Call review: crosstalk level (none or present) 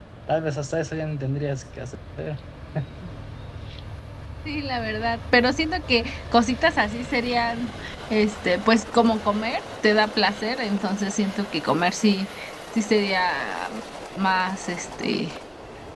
none